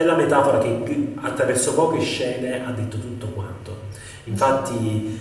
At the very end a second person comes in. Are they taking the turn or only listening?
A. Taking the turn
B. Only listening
B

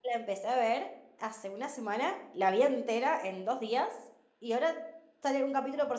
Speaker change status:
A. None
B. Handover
A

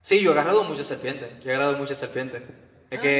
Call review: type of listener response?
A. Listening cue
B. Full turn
A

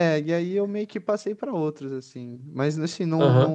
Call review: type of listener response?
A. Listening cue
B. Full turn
B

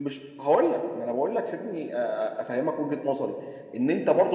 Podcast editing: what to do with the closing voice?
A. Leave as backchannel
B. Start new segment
A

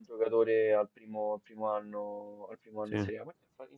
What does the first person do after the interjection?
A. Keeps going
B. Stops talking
A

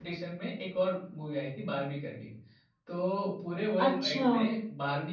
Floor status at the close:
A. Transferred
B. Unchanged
B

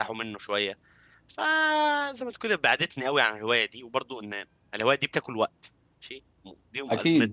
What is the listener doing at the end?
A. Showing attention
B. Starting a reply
B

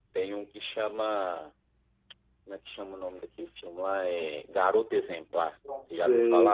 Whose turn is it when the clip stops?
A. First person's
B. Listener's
B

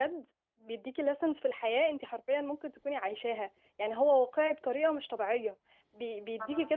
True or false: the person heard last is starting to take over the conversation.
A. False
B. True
A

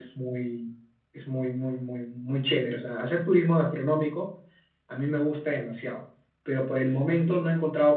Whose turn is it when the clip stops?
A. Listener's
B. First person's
B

